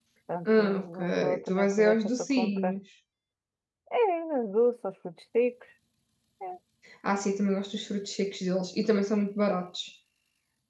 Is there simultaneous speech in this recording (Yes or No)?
Yes